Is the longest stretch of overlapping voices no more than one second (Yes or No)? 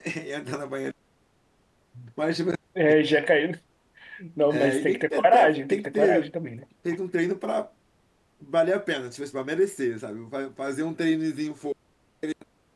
No